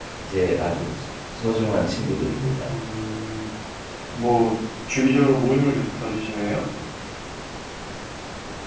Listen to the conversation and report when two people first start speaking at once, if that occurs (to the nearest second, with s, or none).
none